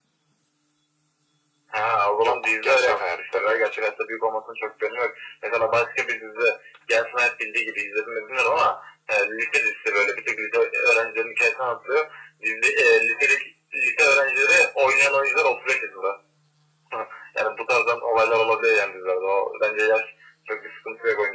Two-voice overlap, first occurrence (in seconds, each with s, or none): 2.2 s